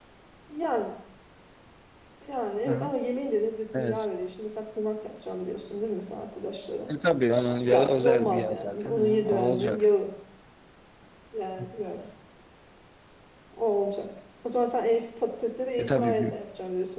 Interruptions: present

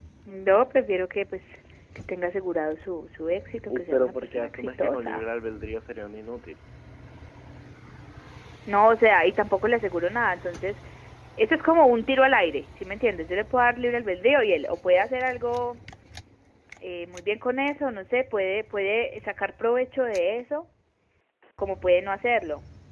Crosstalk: present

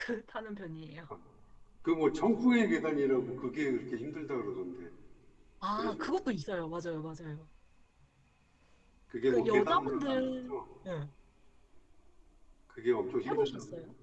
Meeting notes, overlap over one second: present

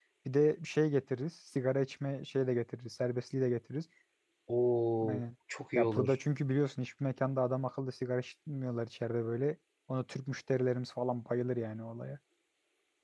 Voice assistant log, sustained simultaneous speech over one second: none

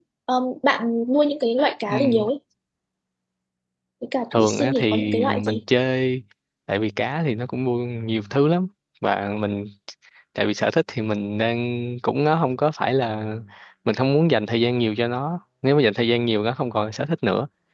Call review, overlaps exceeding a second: present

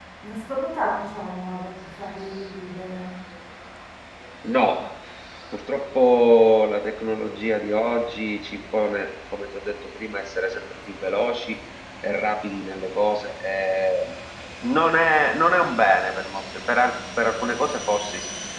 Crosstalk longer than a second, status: none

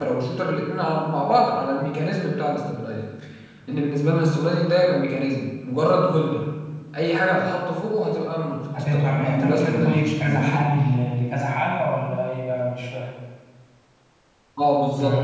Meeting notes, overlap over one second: present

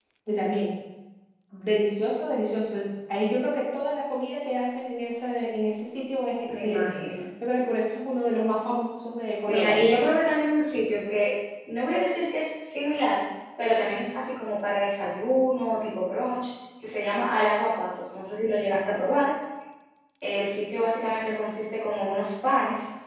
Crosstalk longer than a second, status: none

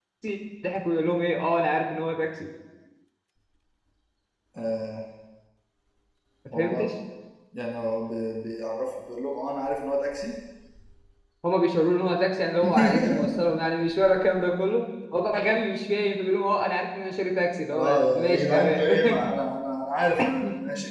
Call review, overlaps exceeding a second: present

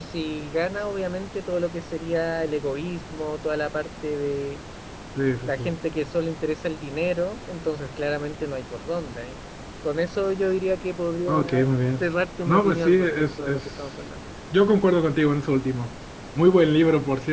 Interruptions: present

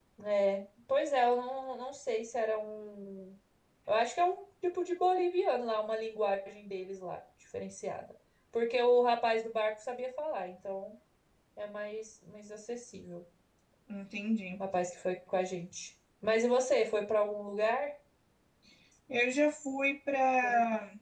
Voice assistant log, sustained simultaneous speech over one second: none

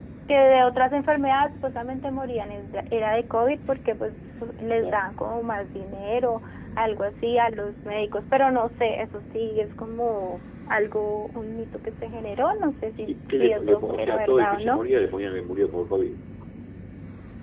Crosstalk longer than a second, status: present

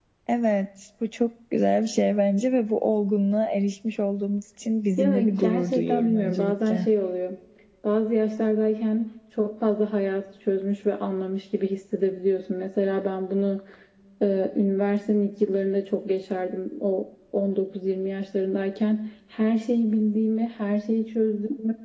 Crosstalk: present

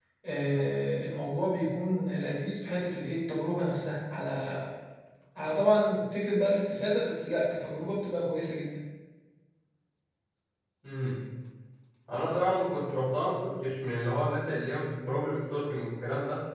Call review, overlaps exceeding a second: none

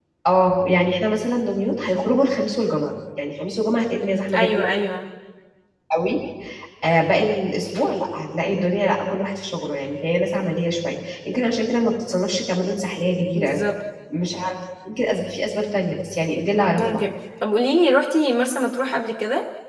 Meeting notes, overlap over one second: none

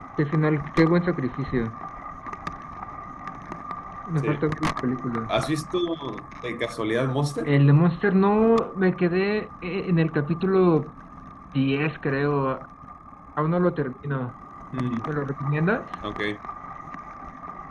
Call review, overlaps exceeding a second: none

